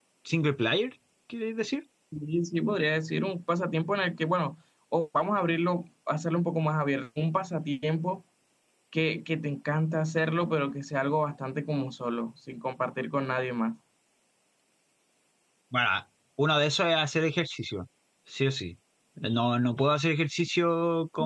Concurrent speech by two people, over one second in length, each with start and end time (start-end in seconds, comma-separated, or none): none